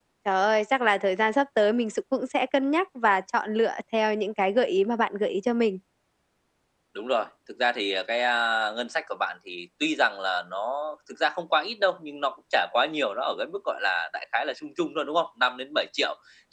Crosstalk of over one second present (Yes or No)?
No